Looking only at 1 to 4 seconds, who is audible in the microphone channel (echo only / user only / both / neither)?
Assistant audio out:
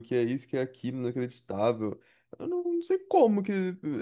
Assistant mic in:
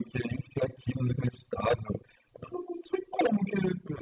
echo only